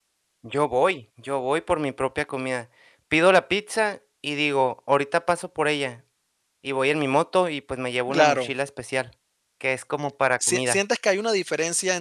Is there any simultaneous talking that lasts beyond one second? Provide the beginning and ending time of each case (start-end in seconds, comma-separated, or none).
none